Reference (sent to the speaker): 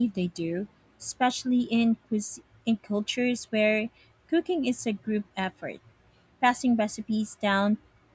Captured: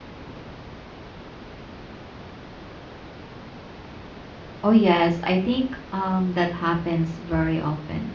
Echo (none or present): none